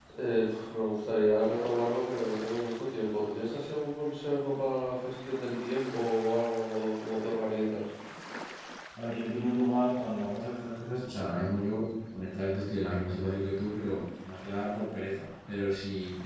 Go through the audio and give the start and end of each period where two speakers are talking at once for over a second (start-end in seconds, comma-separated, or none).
none